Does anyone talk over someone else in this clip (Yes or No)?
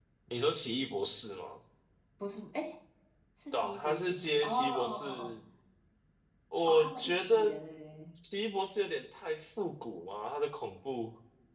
Yes